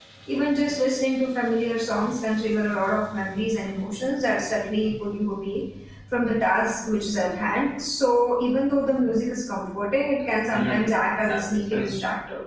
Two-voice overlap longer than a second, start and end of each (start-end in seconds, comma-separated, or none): 10.5-11.9